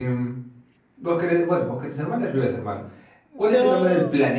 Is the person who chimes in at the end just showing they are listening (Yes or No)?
Yes